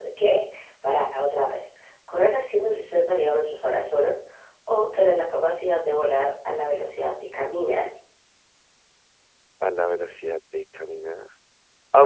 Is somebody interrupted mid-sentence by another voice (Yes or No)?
No